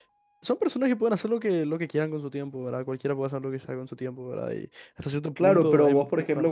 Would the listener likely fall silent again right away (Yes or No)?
No